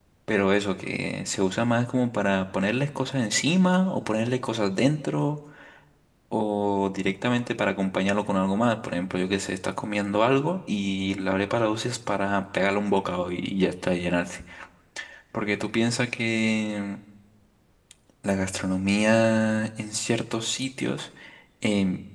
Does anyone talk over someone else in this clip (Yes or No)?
No